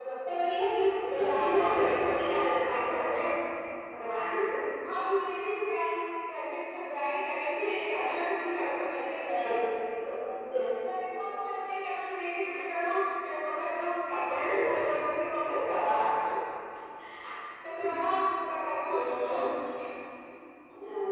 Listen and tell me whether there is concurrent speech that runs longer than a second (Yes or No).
Yes